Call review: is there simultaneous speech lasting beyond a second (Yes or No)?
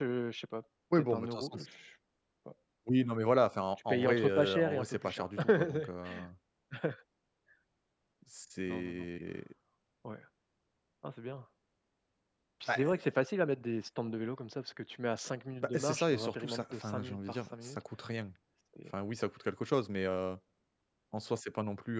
Yes